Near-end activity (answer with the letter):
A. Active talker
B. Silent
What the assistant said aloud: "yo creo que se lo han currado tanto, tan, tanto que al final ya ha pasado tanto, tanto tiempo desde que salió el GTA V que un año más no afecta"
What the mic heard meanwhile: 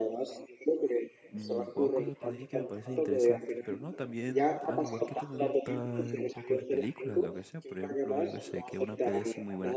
A